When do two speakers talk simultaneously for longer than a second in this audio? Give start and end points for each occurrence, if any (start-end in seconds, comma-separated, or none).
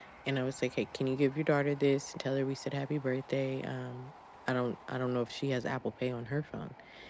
none